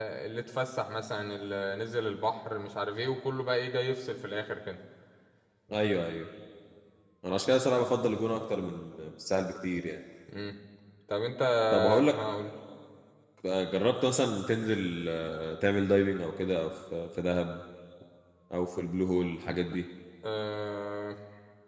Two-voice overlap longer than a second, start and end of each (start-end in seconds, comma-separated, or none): none